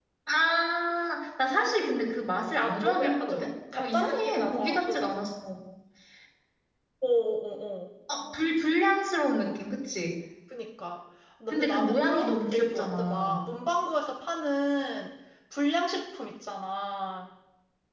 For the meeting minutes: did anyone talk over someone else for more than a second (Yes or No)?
Yes